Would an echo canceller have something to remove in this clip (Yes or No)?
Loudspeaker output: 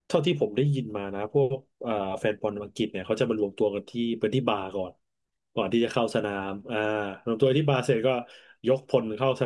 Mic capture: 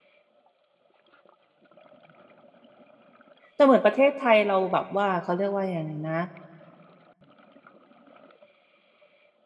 No